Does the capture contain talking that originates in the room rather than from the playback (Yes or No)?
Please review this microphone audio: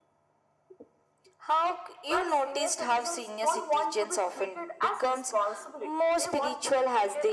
No